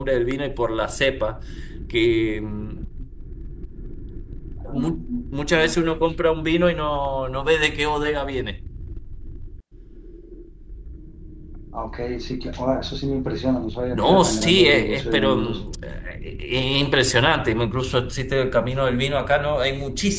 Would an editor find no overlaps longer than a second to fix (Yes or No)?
No